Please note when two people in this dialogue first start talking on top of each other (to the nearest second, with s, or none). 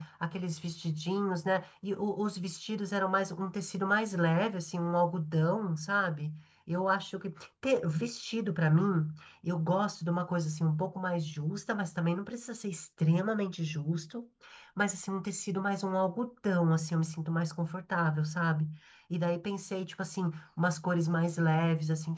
none